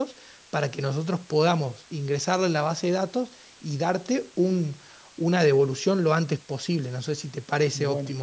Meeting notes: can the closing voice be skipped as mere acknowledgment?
No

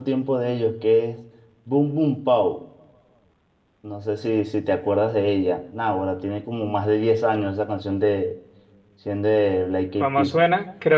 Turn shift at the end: Yes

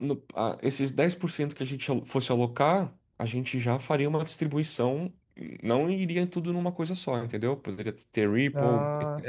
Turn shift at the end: No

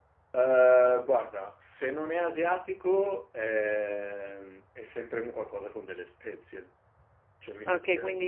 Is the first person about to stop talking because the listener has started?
Yes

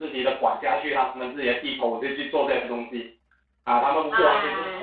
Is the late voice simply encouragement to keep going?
Yes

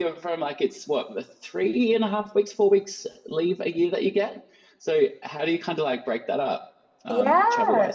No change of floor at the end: No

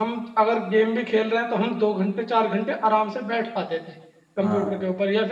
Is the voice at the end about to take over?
No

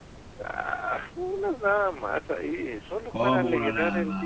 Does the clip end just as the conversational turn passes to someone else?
Yes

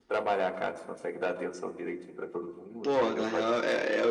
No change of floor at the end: No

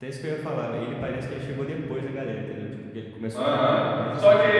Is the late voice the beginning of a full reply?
Yes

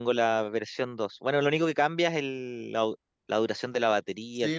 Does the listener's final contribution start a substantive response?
Yes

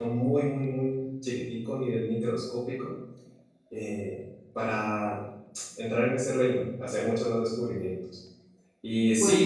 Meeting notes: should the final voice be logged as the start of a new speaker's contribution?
No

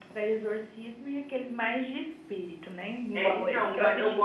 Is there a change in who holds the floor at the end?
Yes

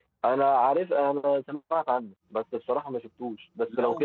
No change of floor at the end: No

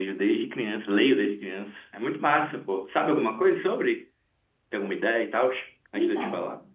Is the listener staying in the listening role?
No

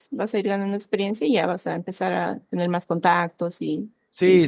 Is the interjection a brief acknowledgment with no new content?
No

